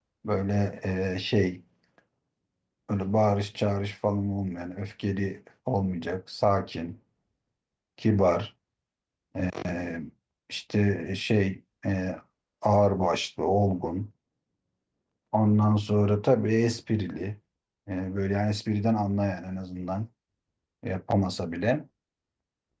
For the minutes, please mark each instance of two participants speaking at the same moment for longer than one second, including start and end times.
none

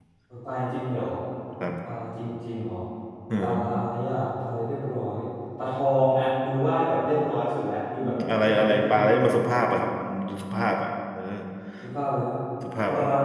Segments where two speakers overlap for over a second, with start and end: 8.0-9.3

